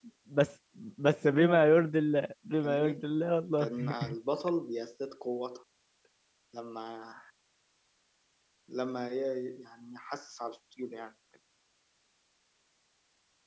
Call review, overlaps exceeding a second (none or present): none